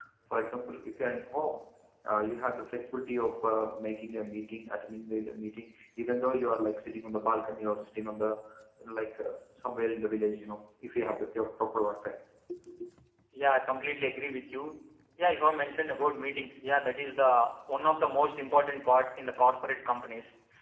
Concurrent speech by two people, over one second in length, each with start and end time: none

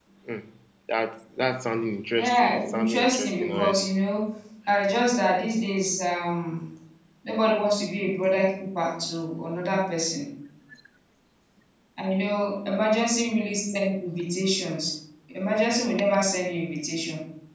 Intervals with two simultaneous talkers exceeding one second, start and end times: 2.1-3.9

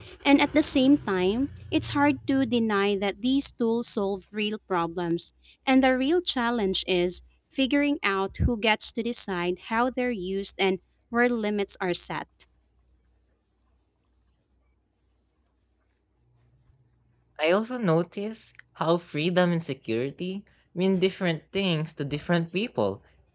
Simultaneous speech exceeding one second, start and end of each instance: none

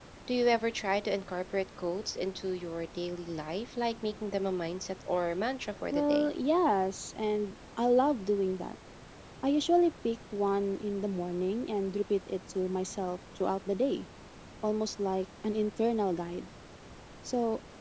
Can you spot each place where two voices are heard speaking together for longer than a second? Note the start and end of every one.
none

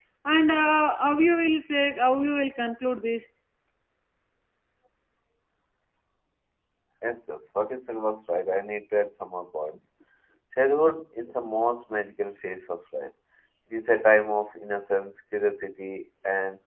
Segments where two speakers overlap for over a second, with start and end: none

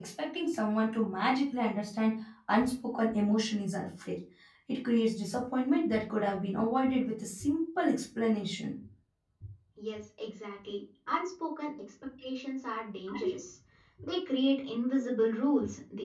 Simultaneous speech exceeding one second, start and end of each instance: none

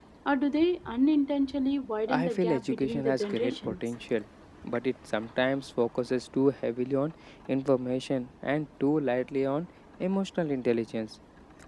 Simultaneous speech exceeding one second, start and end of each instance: 2.1-3.8

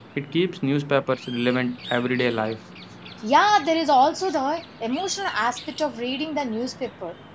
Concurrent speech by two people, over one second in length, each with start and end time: none

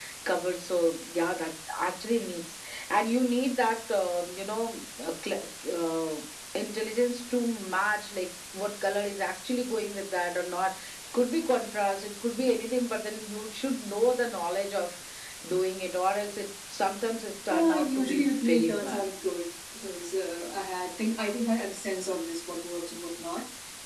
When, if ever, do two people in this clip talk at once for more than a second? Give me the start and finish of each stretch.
17.5-19.0

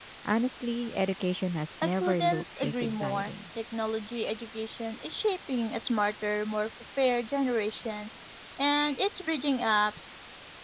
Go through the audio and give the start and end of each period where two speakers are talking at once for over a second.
1.8-3.3

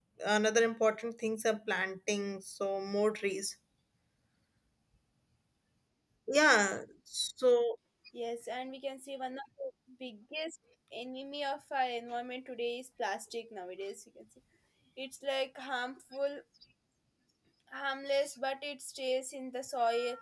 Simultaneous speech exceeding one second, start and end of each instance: none

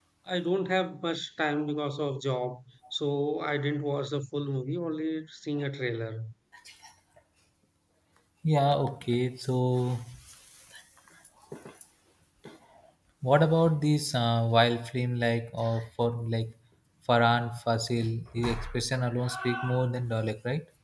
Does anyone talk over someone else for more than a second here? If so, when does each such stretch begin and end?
none

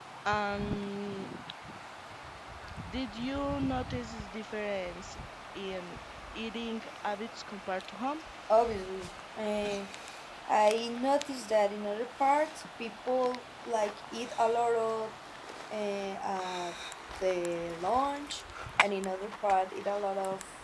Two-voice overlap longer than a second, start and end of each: none

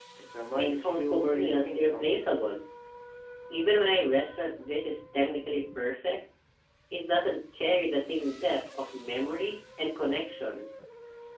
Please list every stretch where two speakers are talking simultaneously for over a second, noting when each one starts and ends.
0.6-2.1

